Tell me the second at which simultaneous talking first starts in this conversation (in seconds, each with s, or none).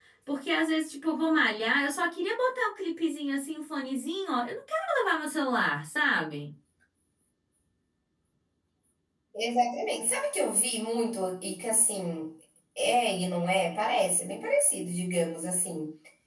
none